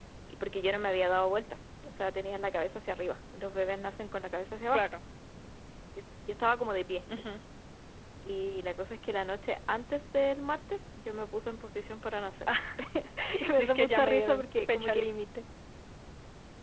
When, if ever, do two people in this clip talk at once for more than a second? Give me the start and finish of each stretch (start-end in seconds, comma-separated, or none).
13.6-15.1